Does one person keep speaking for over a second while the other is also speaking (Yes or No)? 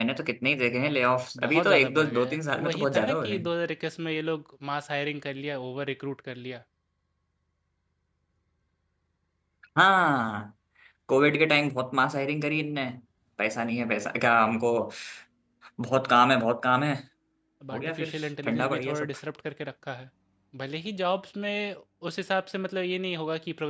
Yes